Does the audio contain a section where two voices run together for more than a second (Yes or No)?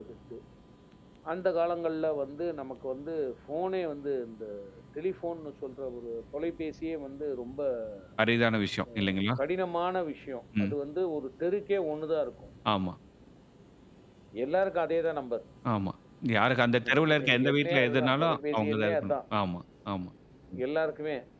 Yes